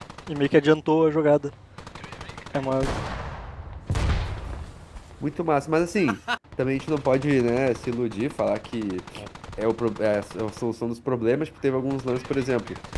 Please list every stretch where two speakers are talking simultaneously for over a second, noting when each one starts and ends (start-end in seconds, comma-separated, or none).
none